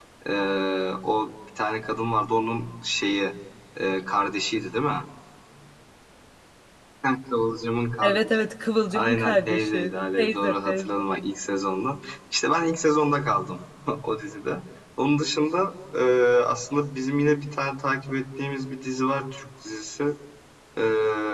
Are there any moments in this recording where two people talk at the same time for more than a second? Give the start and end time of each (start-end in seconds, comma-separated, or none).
8.9-11.0